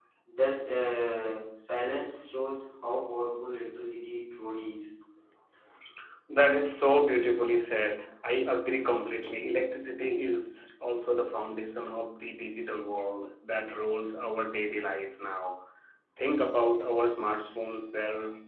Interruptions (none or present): none